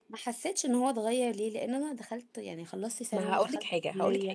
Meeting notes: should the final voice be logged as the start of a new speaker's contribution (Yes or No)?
Yes